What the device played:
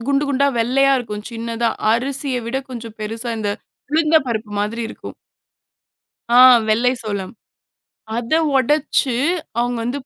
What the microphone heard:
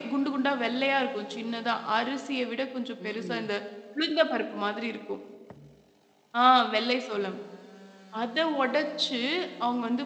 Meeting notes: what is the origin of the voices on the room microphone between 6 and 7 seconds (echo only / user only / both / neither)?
echo only